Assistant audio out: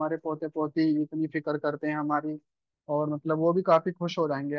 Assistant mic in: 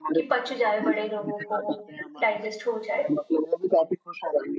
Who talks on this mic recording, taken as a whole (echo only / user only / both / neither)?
both